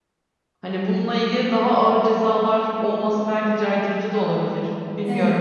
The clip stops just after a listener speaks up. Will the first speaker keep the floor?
No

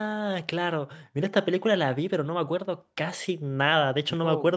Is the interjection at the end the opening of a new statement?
No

